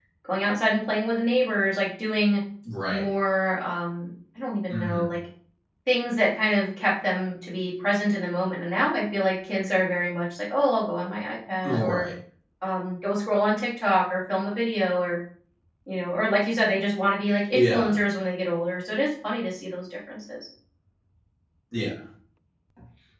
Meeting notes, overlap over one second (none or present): none